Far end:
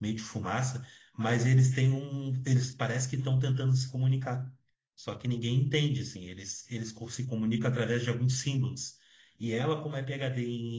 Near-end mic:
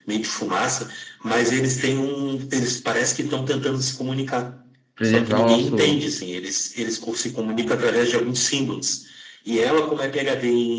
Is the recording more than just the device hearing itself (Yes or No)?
Yes